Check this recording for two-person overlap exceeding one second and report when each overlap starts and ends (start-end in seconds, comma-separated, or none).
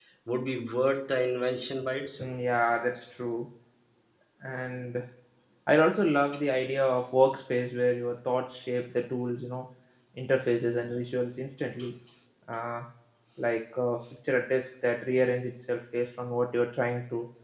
none